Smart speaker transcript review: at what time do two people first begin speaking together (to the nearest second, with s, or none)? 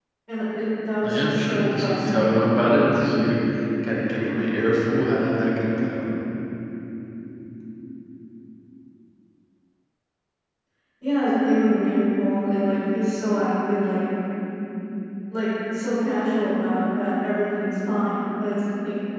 1 s